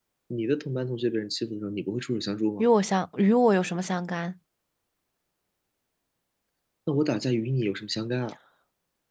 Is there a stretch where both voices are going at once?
No

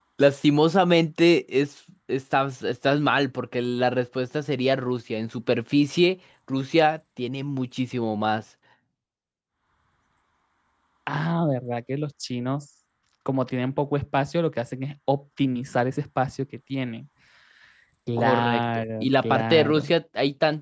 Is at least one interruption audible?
Yes, from 18.2 s

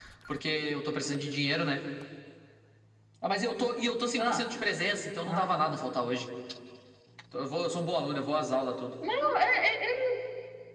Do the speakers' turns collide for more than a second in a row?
No

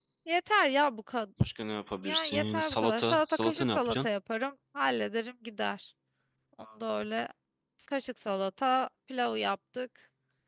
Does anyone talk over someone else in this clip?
Yes, from 2.0 s

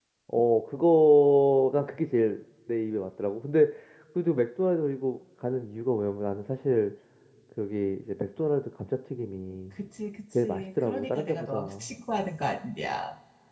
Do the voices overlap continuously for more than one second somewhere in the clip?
Yes, from 10.4 s

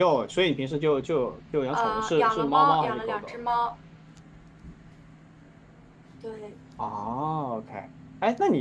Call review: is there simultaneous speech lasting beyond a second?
Yes, from 1.7 s

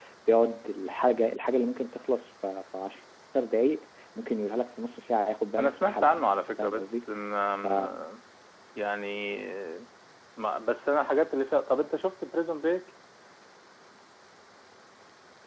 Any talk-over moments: Yes, from 5.6 s

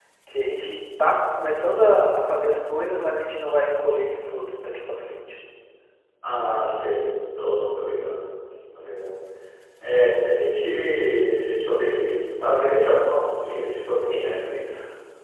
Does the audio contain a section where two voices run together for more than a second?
No

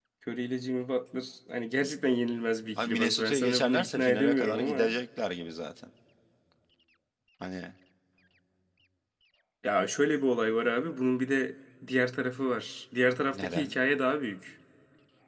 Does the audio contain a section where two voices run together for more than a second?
Yes, from 2.8 s

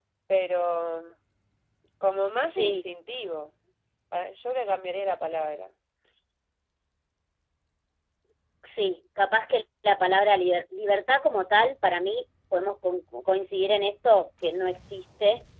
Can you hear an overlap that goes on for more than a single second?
No

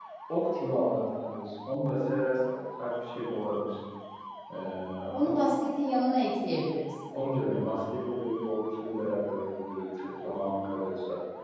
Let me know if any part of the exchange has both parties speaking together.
No

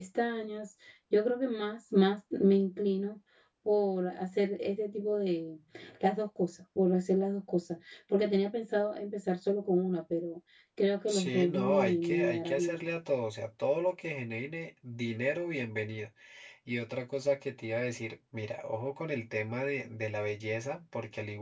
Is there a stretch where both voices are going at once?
Yes, from 11.1 s

